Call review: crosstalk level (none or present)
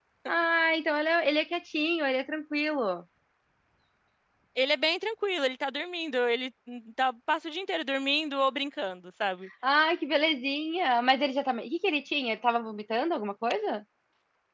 none